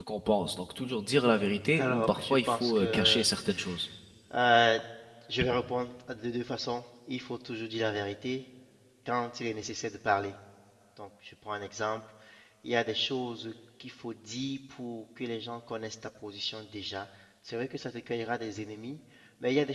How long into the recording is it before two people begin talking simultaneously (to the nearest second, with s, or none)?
2 s